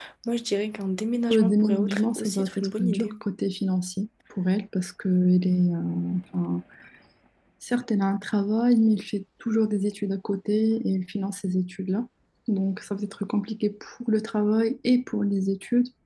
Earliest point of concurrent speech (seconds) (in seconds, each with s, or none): 1.3 s